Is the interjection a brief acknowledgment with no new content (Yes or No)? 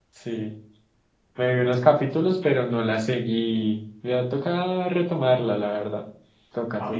No